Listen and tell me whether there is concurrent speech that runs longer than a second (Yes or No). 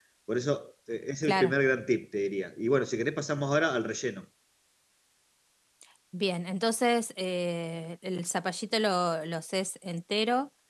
No